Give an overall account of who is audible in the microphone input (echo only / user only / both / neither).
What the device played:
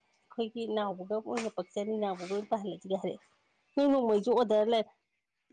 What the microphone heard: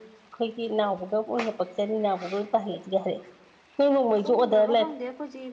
both